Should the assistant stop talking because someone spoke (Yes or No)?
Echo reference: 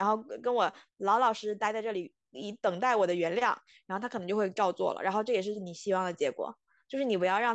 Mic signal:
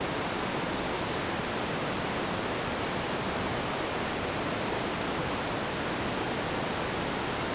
No